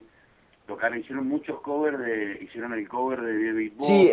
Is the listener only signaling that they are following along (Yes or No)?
No